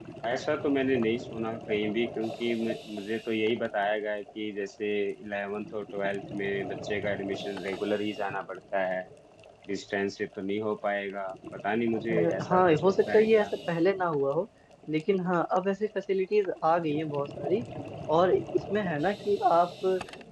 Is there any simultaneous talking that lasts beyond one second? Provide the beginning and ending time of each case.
12.1-13.5

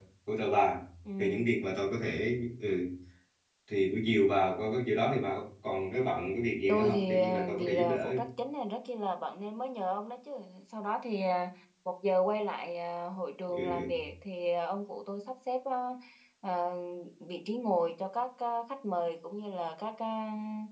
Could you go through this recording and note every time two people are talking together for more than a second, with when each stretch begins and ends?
6.7-8.2

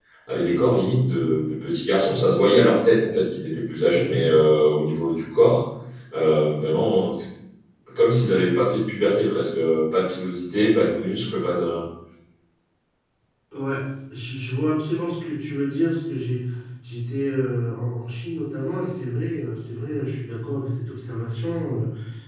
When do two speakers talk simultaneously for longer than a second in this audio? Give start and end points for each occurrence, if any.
none

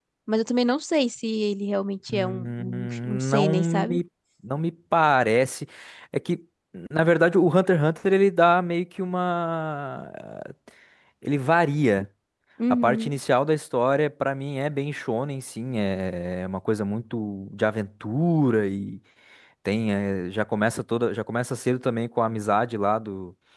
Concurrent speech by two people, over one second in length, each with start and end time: 2.1-4.0

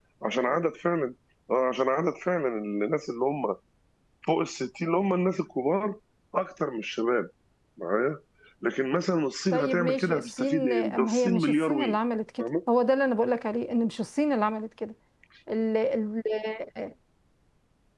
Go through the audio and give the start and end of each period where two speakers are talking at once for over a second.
9.5-12.0

